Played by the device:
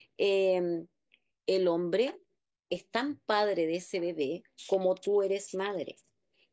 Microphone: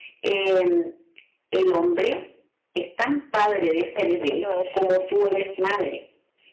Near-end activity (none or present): present